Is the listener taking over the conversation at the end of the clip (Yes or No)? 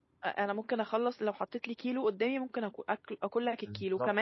No